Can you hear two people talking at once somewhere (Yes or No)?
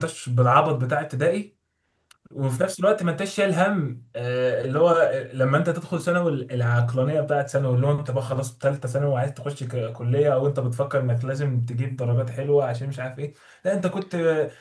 No